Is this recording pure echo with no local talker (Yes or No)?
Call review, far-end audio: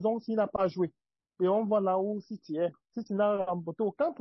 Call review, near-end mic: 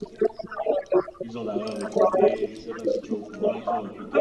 No